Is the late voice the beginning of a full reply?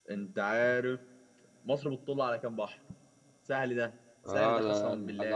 Yes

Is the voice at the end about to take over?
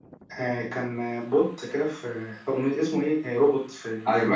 Yes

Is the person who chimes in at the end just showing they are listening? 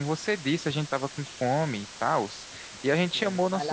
No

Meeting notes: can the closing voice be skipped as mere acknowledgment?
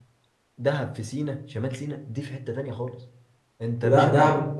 No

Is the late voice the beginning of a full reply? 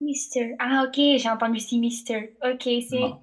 No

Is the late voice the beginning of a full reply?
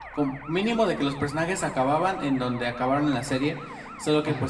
No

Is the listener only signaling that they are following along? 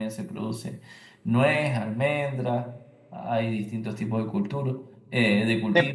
Yes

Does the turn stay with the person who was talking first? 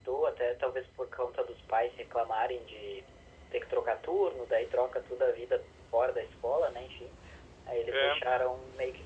Yes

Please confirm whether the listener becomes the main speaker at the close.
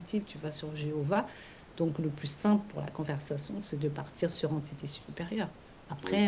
Yes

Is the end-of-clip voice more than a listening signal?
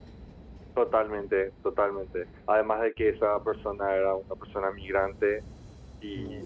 No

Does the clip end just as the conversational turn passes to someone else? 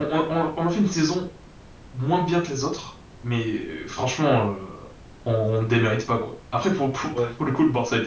No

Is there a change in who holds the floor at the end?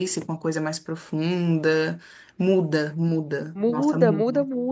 Yes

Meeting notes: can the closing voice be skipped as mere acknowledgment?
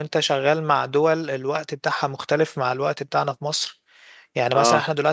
Yes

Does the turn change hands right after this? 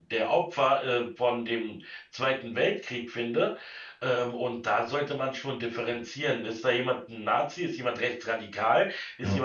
No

